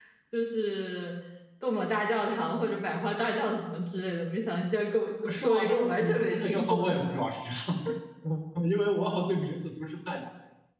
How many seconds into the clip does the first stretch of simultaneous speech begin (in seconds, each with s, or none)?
5.3 s